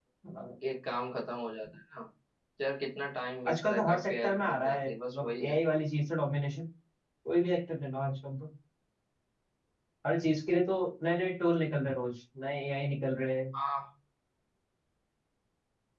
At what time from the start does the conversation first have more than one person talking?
3.5 s

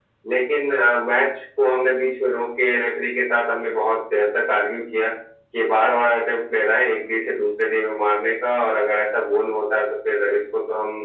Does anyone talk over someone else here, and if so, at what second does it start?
none

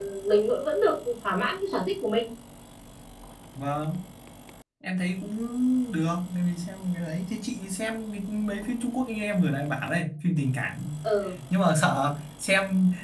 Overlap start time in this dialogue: none

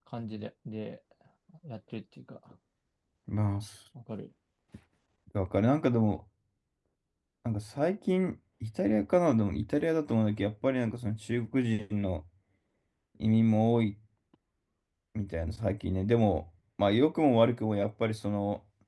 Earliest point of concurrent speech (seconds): none

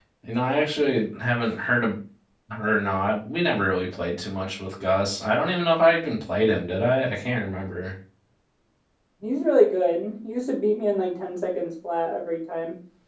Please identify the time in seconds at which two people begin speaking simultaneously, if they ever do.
none

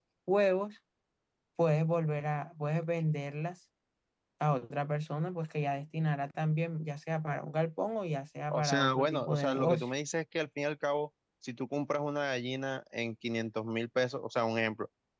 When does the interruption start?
8.5 s

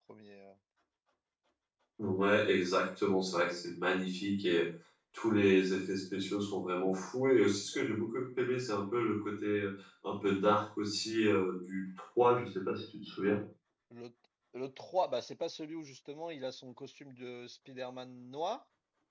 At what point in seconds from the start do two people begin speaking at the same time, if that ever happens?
none

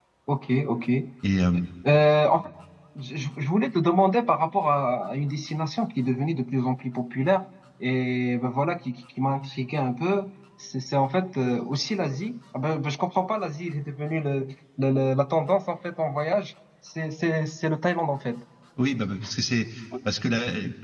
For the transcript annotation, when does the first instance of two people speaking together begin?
none

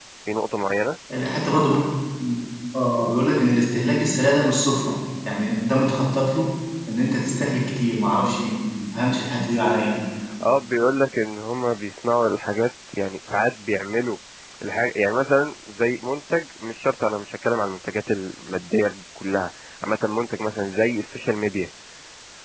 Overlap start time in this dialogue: none

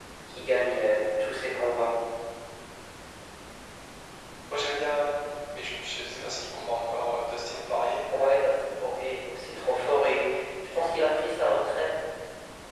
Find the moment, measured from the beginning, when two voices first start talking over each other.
none

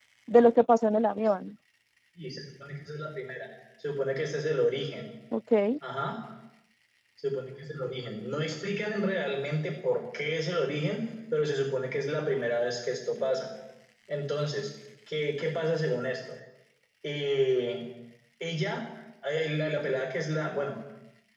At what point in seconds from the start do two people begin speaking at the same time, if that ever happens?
none

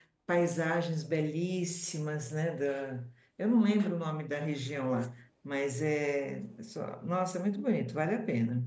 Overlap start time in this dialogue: none

